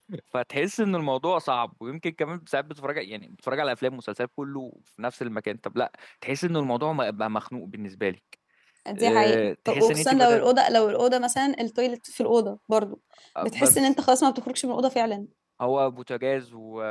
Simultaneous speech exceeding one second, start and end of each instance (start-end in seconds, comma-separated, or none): 8.9-10.4